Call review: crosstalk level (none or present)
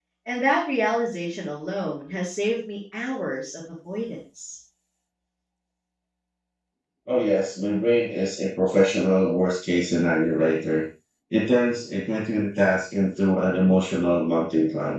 none